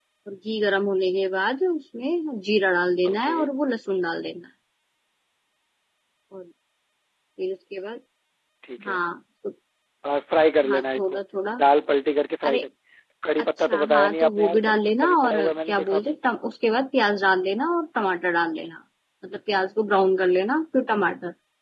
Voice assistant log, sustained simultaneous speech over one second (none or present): present